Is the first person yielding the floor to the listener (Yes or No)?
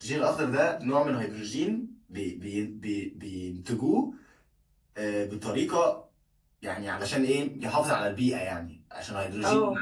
No